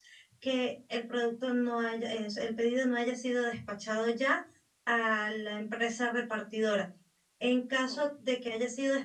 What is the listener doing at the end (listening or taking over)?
listening